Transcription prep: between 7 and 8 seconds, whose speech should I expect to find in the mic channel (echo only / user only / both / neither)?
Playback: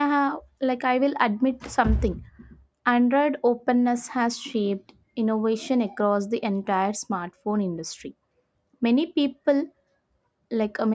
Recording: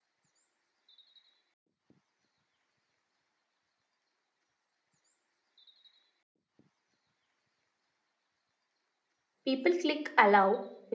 neither